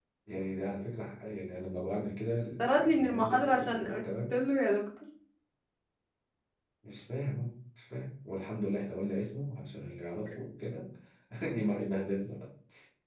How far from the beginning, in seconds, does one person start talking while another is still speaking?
2.6 s

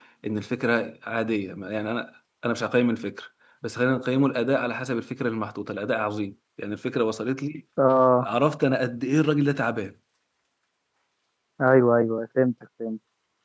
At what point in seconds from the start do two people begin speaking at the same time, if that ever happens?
none

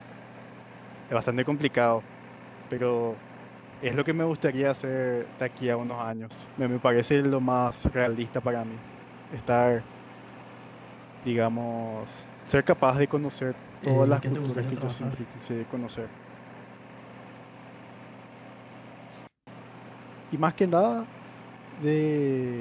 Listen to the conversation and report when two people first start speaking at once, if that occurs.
13.8 s

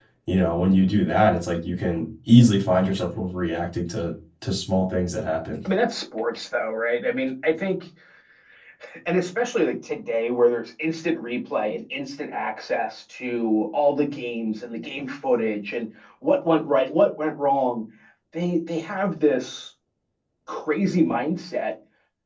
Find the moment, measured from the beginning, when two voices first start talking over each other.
none

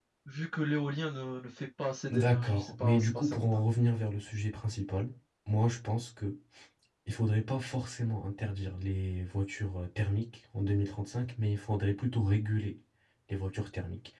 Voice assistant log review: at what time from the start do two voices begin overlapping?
2.1 s

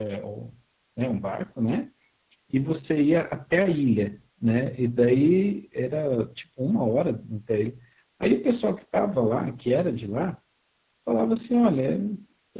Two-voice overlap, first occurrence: none

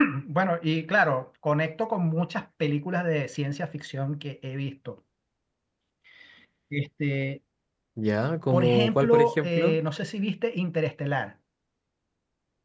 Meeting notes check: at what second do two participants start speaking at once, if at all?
8.5 s

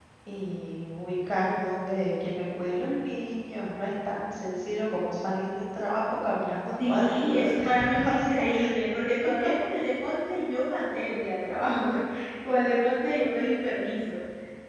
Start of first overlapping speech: 6.8 s

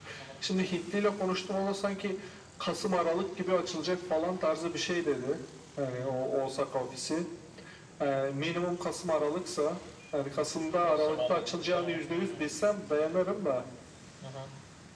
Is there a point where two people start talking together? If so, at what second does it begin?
10.8 s

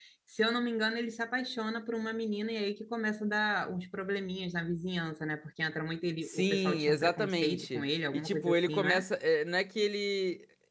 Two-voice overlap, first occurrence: 6.2 s

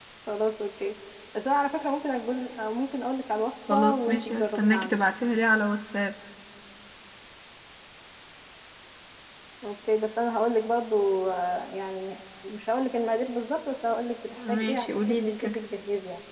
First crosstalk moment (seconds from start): 3.7 s

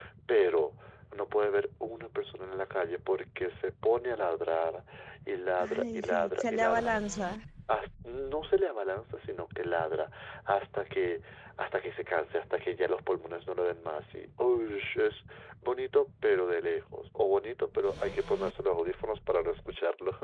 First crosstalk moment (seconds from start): 5.6 s

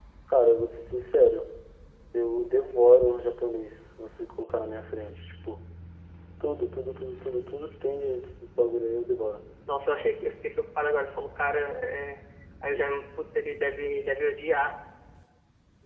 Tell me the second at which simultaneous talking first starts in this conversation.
none

